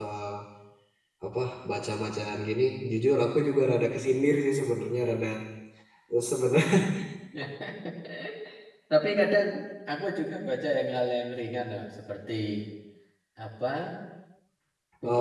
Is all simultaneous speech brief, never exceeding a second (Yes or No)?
Yes